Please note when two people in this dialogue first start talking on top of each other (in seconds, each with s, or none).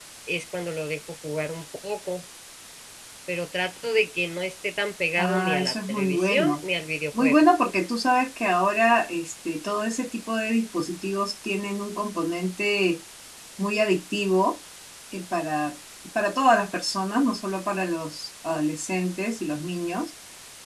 5.2 s